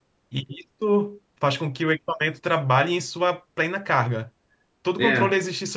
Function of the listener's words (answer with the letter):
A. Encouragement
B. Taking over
A